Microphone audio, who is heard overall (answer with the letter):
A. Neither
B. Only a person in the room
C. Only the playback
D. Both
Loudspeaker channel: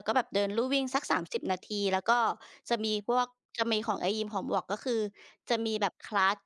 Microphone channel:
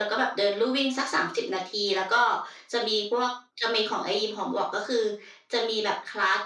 C